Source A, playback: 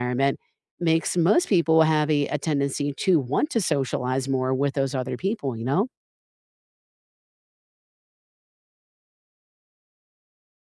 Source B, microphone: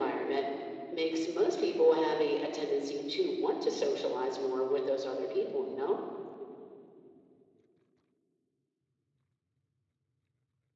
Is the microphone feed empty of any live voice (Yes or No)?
Yes